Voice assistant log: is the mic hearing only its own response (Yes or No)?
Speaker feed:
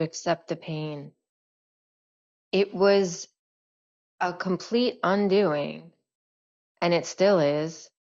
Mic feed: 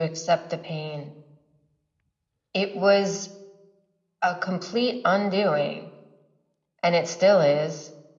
Yes